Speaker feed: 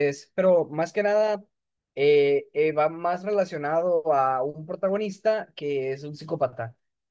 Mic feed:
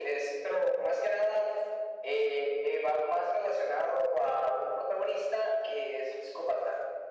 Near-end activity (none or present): none